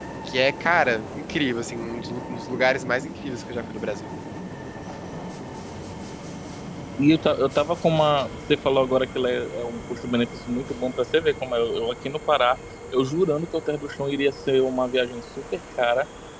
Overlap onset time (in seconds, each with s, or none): none